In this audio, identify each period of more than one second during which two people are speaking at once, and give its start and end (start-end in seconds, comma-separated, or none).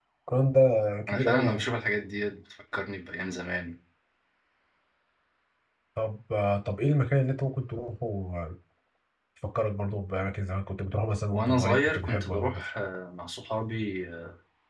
11.3-12.6